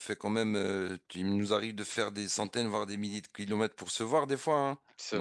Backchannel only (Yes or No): Yes